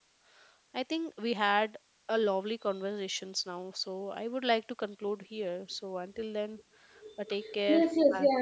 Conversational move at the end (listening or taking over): taking over